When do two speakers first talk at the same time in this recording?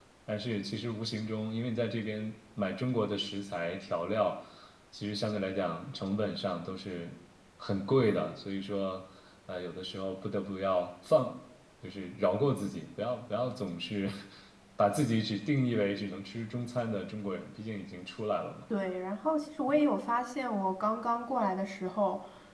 none

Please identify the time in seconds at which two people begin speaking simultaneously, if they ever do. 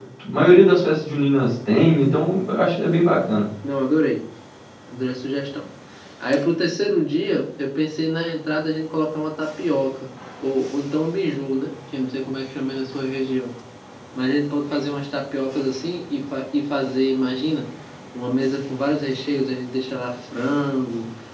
none

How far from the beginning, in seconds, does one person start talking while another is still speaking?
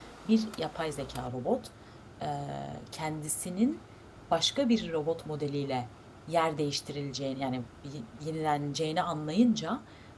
none

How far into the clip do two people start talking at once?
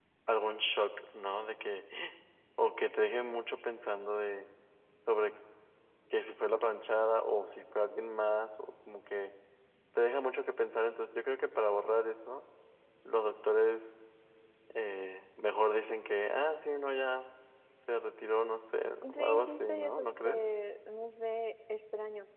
19.0 s

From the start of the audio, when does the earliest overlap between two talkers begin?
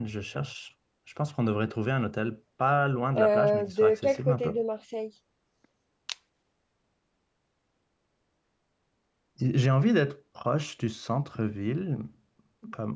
3.1 s

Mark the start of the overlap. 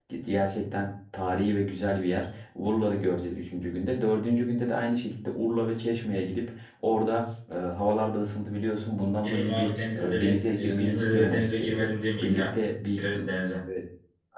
9.2 s

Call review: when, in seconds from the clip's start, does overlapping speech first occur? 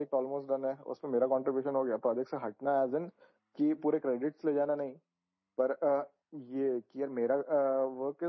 none

